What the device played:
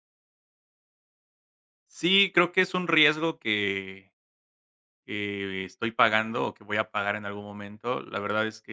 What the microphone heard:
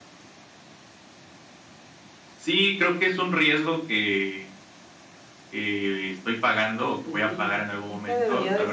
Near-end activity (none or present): present